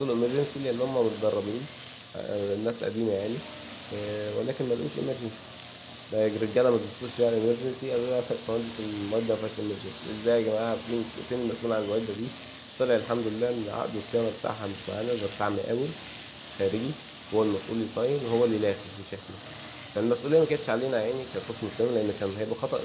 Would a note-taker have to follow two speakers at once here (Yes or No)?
No